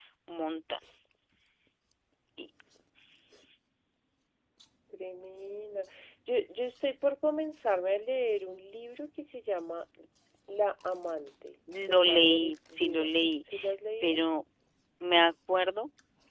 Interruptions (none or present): present